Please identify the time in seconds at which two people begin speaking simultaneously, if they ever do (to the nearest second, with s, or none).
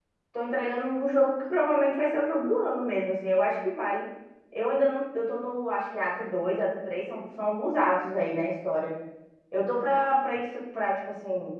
none